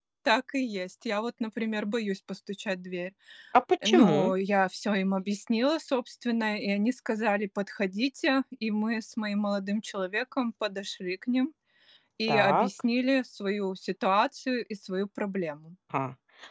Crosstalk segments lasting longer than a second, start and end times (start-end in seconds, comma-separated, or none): none